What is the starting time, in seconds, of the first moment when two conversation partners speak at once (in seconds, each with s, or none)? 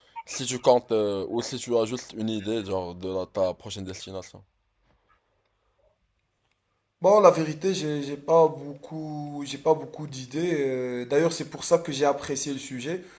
none